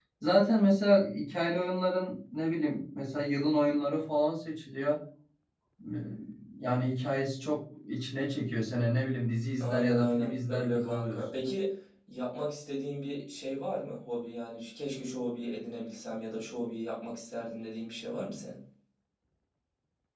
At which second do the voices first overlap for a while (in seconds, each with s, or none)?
9.6 s